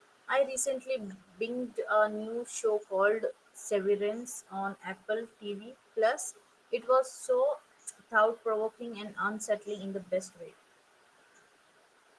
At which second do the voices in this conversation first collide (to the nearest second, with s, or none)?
none